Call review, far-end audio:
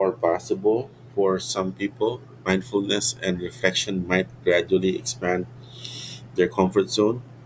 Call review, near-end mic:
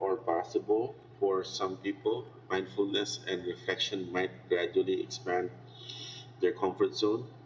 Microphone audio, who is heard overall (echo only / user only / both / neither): echo only